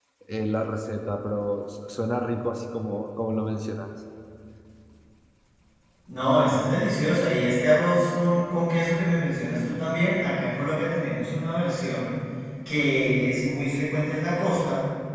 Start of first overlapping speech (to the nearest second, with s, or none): none